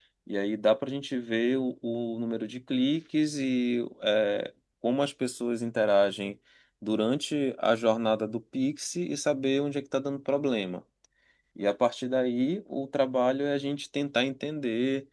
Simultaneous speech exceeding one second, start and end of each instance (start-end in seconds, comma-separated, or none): none